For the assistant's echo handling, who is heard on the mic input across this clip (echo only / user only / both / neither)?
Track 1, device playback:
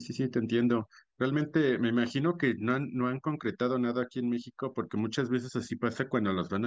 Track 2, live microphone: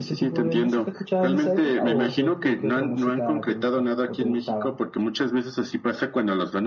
both